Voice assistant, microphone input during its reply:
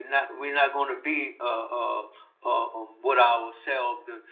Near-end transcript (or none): none